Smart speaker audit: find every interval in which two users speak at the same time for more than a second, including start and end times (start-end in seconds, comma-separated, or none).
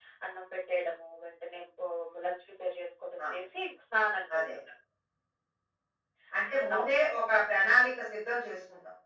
none